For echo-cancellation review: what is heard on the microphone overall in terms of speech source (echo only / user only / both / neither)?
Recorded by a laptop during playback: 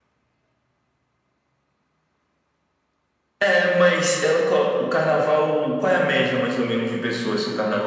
echo only